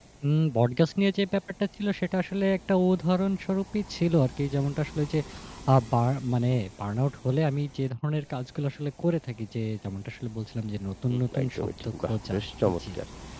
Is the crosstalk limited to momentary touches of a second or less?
No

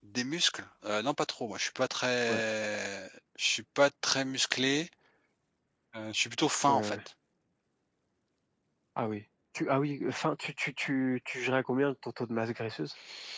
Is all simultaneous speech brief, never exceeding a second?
Yes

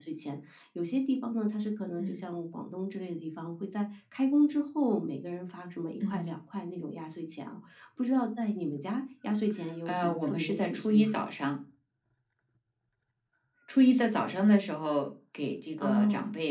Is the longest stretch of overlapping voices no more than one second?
No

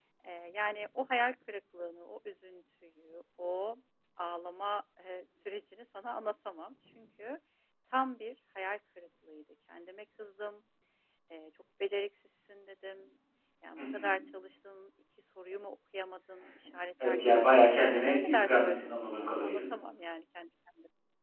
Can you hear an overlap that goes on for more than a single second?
Yes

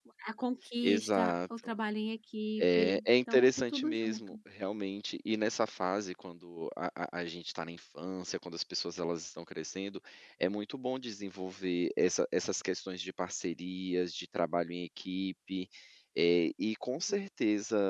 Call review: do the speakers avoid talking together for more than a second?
No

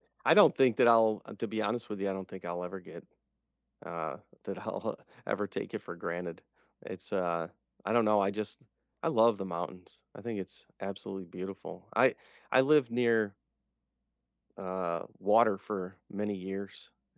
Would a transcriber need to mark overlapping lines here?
No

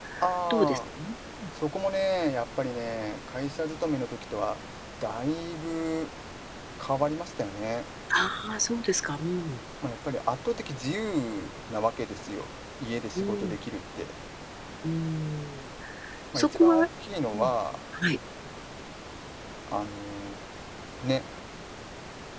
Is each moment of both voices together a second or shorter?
Yes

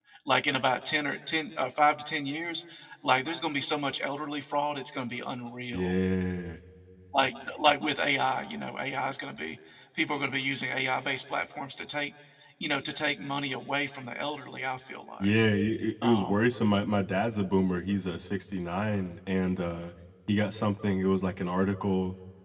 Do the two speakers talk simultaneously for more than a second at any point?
No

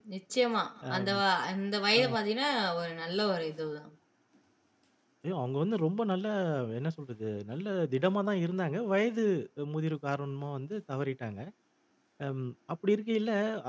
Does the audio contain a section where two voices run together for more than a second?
No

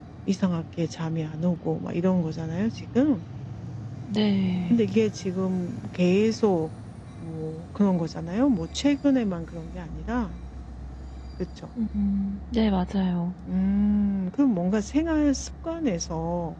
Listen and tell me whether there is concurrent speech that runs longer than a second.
No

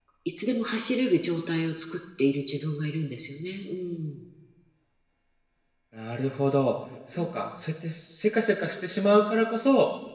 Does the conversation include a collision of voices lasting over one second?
No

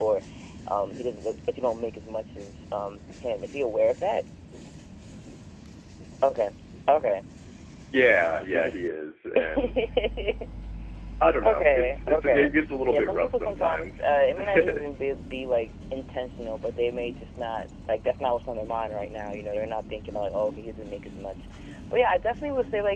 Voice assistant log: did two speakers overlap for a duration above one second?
Yes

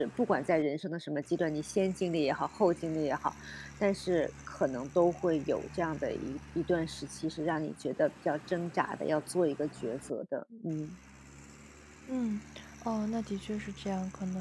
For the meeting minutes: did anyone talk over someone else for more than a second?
No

